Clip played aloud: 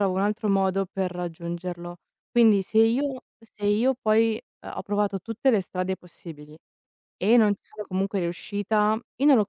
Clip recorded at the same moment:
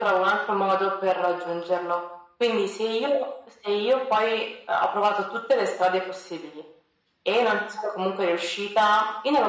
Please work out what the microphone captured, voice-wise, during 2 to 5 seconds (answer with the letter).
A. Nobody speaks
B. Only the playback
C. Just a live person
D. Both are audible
B